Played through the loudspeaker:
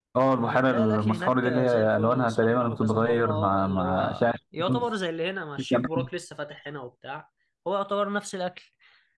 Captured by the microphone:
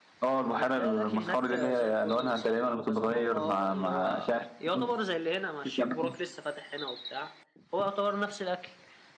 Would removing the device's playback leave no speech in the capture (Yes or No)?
Yes